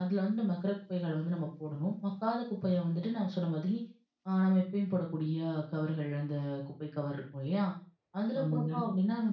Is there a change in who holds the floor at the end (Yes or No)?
No